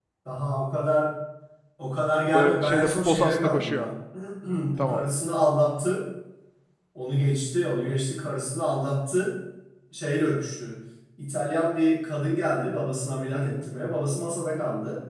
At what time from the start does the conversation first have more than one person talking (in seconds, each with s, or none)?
2.3 s